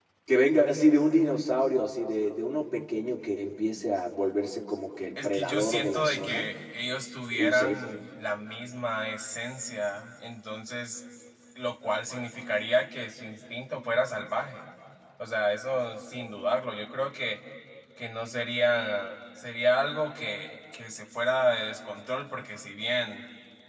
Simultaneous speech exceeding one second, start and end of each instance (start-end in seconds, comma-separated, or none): 5.2-6.5